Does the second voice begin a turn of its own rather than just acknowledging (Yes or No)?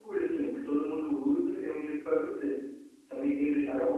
No